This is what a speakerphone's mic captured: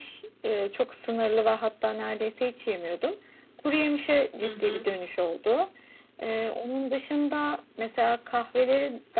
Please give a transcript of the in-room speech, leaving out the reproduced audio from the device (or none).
Hı hı.